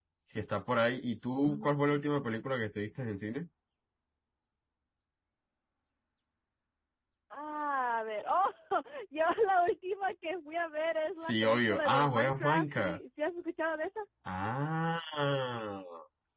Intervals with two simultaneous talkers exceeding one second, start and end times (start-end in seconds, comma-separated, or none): 11.2-13.0